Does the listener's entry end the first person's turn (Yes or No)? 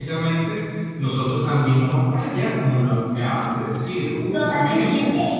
Yes